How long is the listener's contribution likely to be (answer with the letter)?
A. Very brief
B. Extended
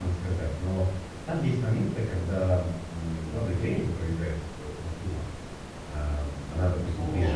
A